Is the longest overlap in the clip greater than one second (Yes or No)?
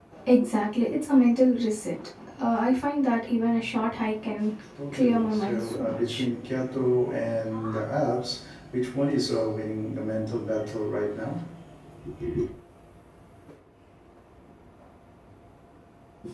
Yes